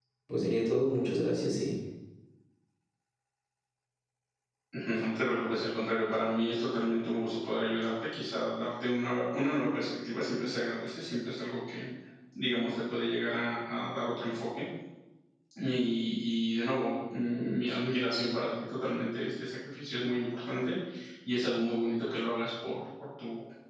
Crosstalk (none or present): none